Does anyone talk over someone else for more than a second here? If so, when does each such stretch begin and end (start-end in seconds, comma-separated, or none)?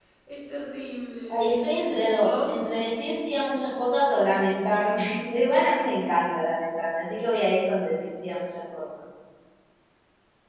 none